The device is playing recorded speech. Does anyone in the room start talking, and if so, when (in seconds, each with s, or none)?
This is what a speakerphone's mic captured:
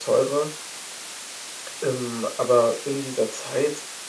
none